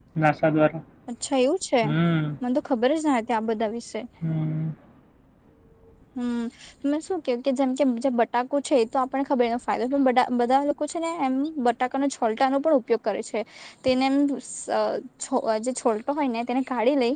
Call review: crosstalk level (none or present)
none